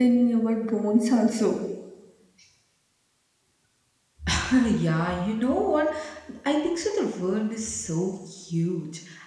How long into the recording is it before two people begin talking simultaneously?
none

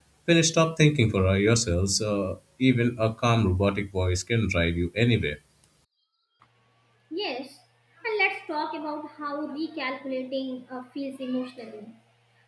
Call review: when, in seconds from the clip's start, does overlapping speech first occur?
none

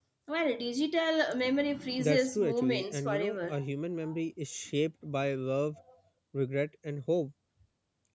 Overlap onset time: 2 s

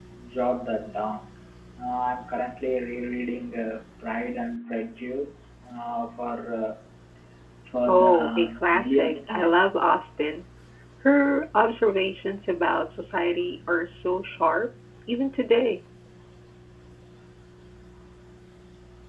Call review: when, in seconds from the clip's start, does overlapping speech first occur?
8 s

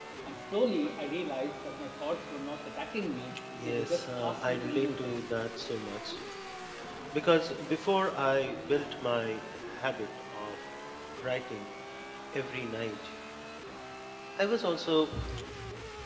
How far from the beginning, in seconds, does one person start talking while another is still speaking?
4 s

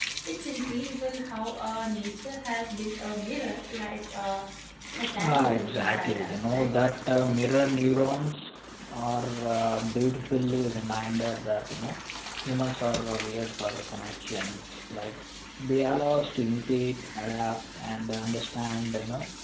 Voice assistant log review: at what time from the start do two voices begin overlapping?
5 s

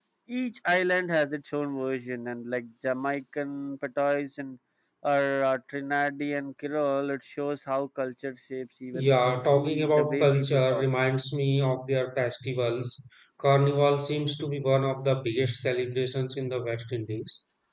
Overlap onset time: 9 s

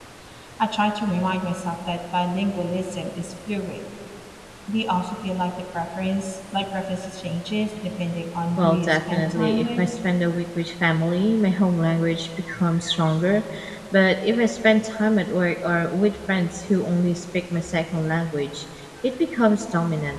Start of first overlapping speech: 9 s

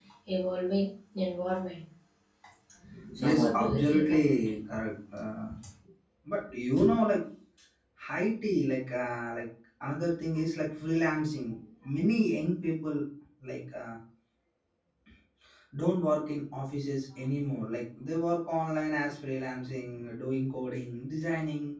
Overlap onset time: 3 s

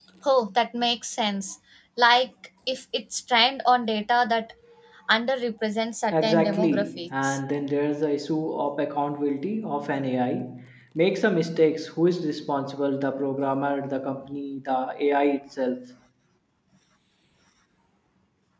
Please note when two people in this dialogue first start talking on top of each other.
6 s

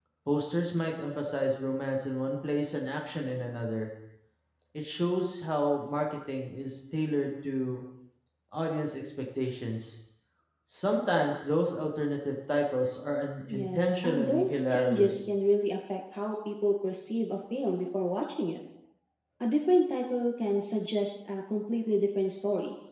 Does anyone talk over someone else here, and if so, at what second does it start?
13 s

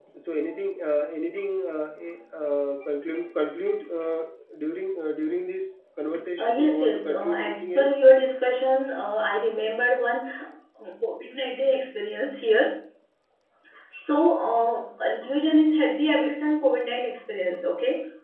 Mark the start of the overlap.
6 s

